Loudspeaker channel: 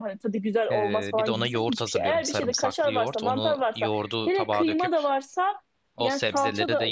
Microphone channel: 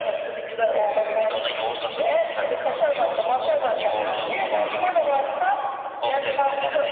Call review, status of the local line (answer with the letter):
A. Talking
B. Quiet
A